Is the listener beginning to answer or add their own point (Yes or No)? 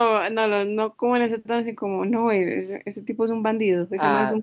Yes